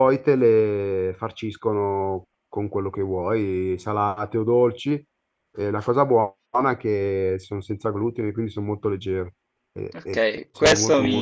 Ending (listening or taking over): taking over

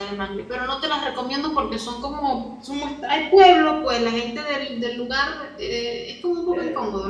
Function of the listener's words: taking over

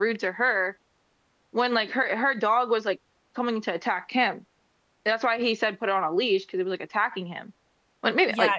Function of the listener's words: taking over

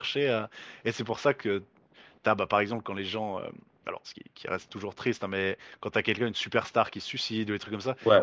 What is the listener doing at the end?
listening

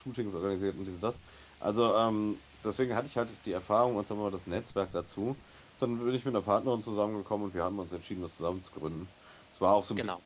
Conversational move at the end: listening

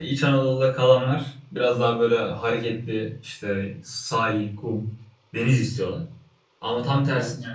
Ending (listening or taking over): listening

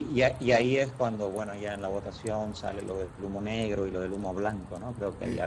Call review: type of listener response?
taking over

